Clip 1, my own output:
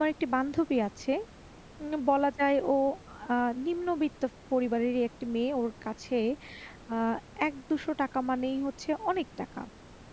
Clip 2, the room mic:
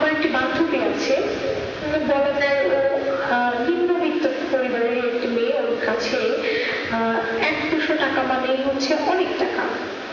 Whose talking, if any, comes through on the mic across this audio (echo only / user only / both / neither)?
echo only